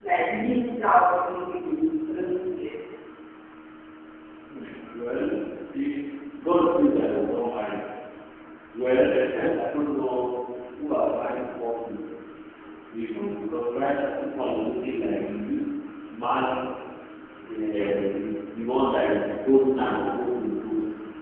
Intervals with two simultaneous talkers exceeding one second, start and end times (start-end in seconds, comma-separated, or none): none